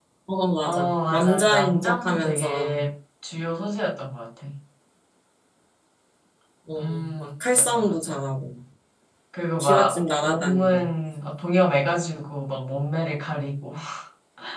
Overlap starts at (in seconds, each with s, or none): 0.6 s